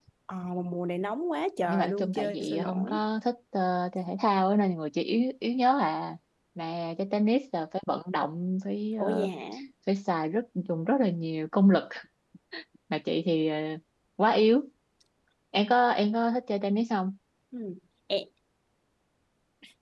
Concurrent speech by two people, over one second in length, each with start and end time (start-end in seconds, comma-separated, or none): 1.7-3.0